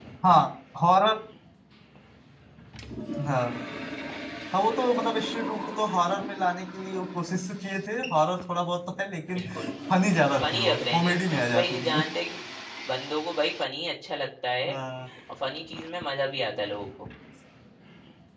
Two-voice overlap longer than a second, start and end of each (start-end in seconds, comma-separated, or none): 10.4-12.0